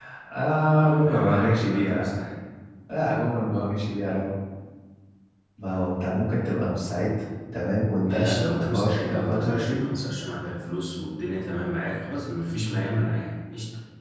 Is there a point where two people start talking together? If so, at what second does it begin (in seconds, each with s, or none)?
0.7 s